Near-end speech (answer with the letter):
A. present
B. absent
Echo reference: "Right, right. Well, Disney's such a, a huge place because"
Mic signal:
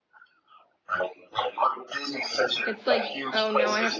A